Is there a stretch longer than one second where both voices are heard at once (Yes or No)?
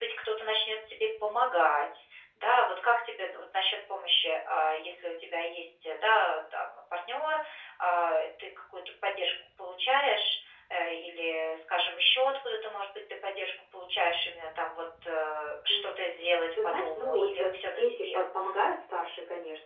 Yes